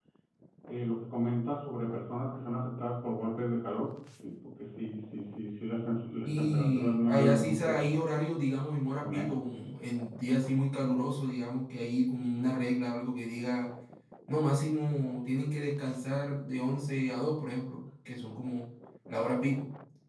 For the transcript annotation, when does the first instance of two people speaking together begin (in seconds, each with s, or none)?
6.2 s